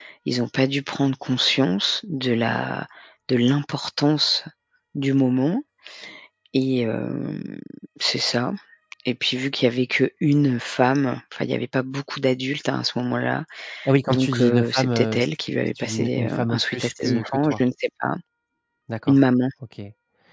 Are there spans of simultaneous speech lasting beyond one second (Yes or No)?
Yes